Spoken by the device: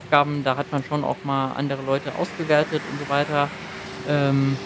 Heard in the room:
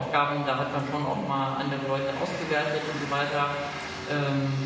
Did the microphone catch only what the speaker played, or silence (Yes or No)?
No